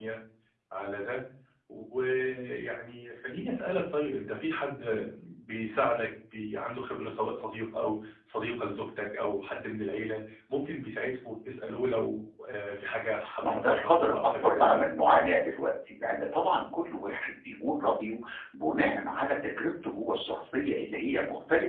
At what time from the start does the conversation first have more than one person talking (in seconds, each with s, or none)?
13.2 s